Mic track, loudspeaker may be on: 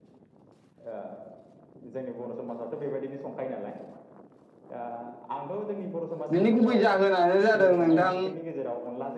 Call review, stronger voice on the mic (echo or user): user